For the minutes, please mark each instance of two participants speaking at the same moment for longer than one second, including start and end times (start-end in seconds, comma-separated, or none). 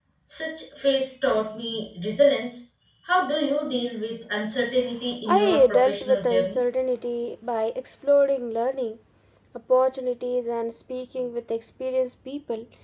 5.3-6.6